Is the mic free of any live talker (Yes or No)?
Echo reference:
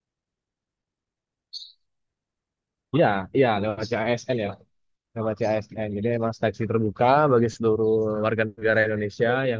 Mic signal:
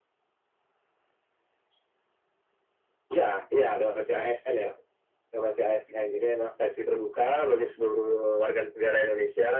Yes